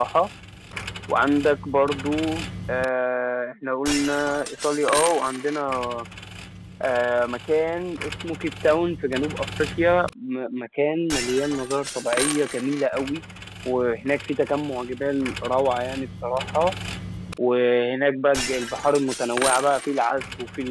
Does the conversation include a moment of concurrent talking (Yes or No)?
No